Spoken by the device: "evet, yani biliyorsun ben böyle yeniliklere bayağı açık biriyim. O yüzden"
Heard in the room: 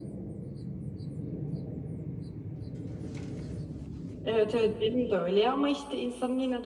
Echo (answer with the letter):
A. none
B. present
A